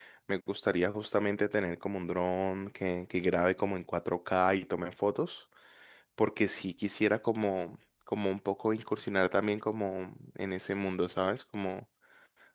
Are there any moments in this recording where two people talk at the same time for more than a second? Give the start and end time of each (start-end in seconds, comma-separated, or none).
none